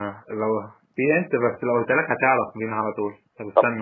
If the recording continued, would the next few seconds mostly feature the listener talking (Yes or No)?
Yes